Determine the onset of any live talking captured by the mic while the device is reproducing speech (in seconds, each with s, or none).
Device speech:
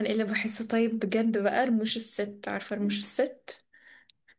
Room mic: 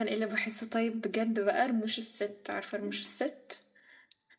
none